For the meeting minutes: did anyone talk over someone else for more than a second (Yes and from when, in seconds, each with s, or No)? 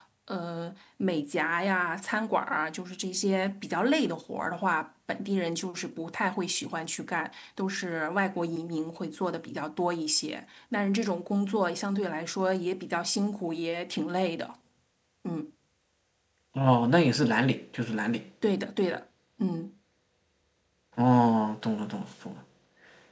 No